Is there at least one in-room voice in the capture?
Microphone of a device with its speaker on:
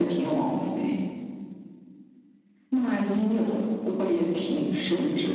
Yes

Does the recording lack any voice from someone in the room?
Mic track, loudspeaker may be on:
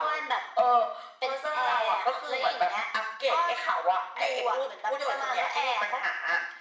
Yes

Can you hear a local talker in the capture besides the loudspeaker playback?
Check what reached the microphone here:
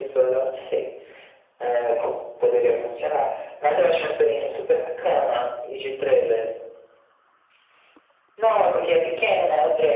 No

